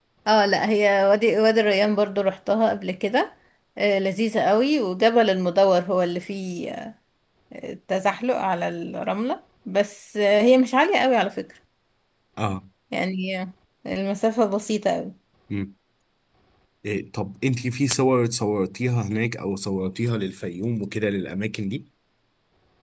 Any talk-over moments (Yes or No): No